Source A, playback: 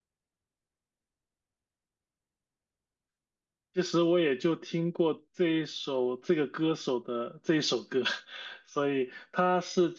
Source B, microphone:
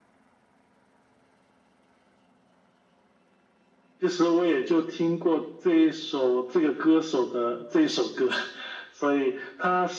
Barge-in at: none

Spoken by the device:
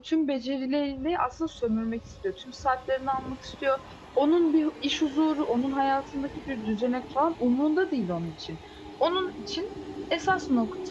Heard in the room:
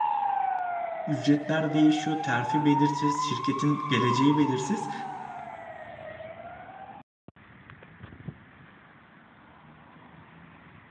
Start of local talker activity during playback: 1.1 s

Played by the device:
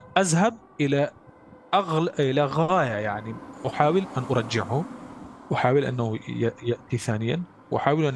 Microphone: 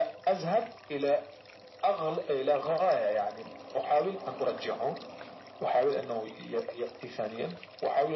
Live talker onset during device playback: none

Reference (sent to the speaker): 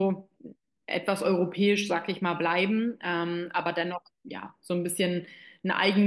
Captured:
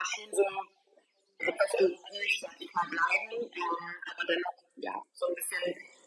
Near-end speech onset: none

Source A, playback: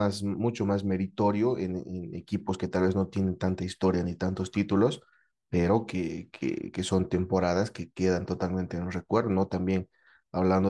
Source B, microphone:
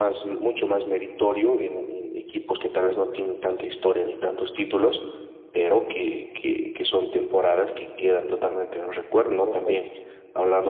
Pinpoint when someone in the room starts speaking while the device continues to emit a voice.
9.4 s

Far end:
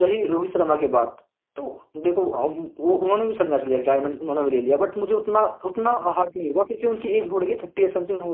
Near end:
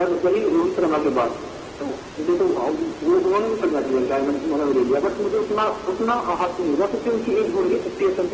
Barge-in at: none

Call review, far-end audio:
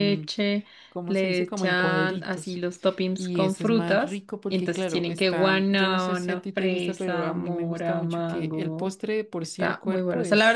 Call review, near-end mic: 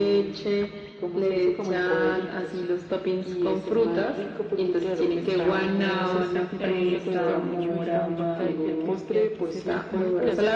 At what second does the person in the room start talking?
5.2 s

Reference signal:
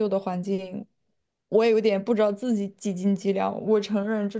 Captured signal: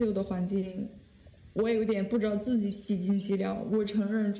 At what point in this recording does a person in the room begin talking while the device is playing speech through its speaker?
none

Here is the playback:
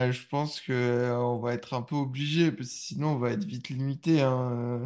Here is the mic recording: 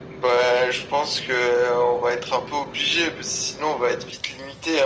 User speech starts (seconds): none

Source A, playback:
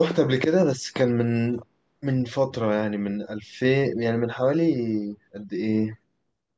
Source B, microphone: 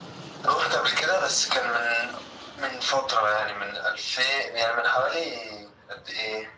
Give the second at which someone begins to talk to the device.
none

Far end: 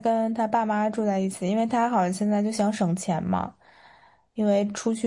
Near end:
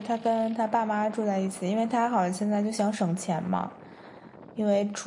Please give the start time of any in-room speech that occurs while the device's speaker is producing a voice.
none

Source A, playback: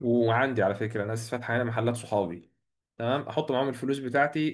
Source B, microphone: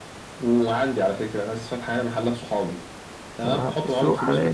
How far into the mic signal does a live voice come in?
3.4 s

